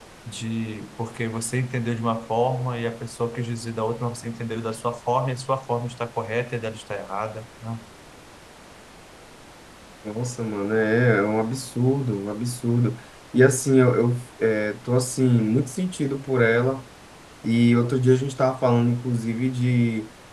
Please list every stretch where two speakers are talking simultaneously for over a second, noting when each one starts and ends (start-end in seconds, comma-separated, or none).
none